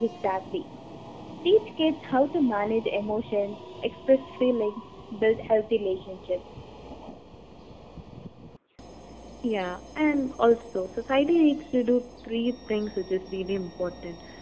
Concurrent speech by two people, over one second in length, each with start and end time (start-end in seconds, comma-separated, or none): none